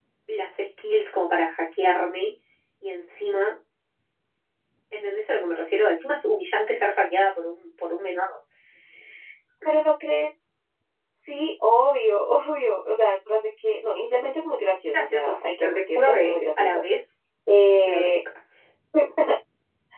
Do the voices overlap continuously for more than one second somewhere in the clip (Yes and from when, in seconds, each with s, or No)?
Yes, from 14.9 s